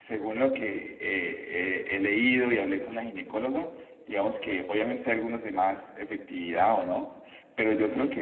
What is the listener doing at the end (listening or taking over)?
listening